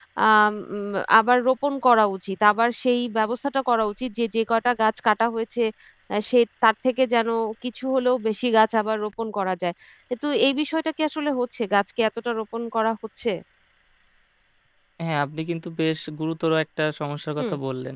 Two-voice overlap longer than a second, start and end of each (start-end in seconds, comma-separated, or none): none